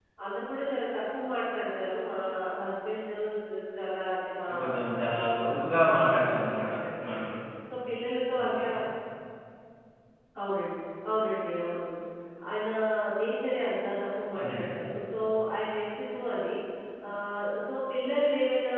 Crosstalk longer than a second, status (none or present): present